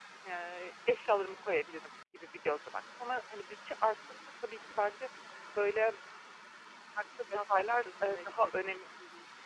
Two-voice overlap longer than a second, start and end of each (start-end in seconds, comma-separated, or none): 7.3-8.8